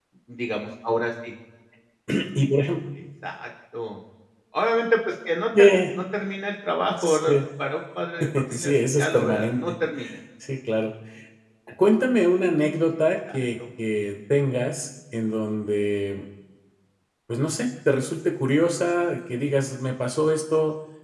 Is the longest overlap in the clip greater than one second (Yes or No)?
Yes